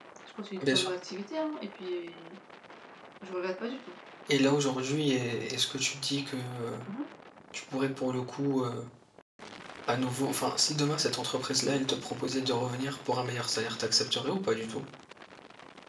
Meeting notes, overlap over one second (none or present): none